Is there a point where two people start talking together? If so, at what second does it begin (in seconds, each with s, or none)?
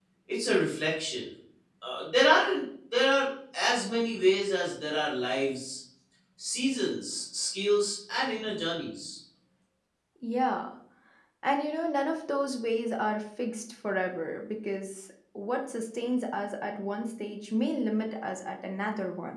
none